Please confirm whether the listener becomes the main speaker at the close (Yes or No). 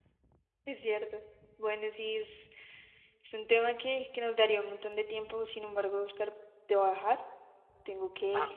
No